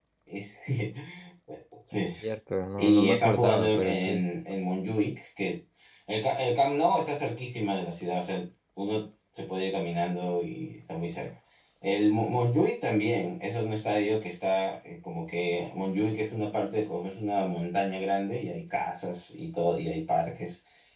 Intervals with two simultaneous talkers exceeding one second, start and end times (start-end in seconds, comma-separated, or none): 2.8-4.2